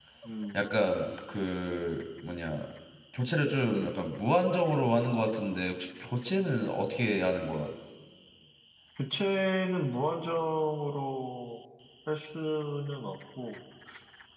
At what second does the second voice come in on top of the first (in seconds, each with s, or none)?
none